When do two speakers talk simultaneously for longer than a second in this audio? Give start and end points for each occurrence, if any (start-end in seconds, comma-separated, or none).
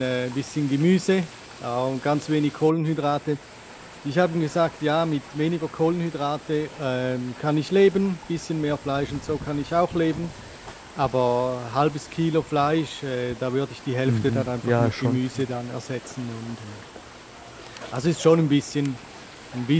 14.1-15.5